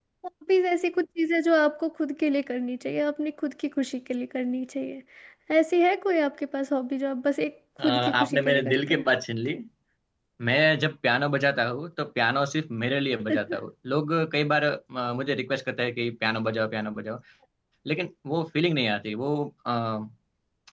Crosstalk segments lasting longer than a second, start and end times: 7.8-9.0

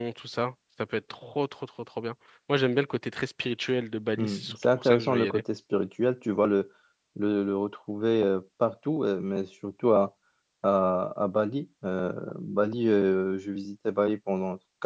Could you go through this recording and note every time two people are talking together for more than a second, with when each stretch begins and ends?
4.2-5.4

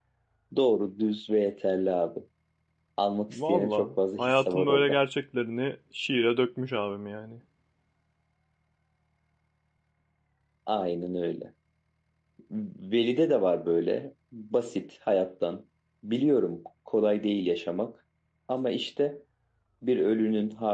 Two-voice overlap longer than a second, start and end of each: 3.3-5.0

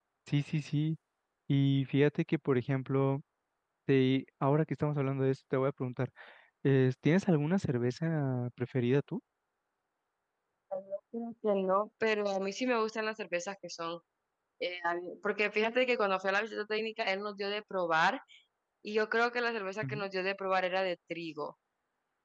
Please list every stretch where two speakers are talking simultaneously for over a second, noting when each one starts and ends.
none

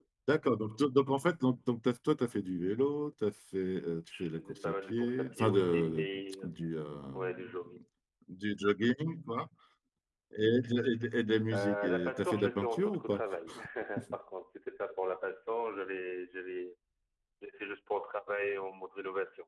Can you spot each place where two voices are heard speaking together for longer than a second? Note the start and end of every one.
4.2-6.0, 11.5-13.2

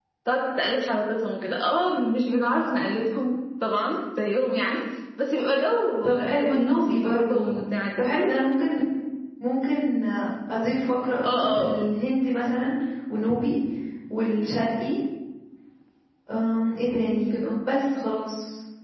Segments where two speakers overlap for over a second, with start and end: 6.0-7.5

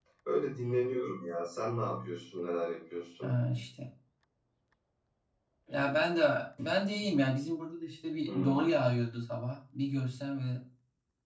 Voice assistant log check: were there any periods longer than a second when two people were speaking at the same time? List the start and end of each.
none

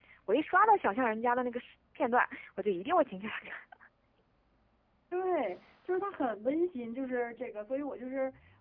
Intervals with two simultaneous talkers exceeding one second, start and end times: none

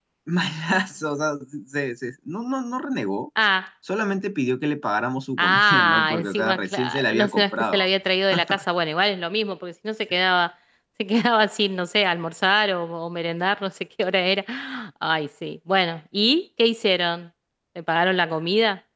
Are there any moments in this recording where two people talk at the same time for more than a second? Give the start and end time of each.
5.4-7.9

